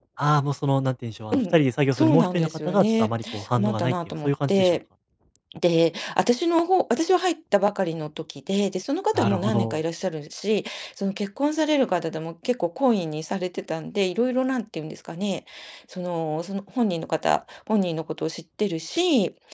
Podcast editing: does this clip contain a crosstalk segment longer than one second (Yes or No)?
Yes